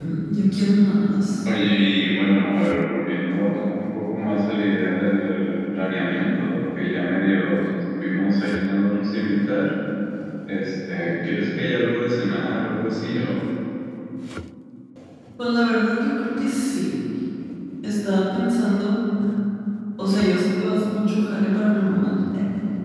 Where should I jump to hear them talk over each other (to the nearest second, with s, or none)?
none